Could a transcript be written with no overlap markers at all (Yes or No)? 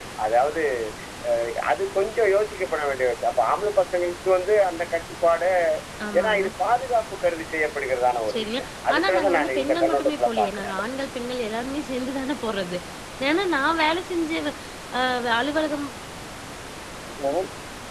No